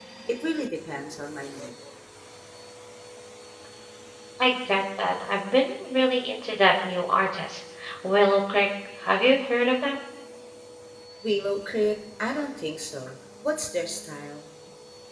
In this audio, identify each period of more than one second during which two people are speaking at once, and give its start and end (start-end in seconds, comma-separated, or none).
none